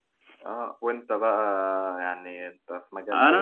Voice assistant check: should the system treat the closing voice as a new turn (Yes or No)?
Yes